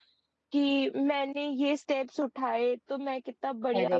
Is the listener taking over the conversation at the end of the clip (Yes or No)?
No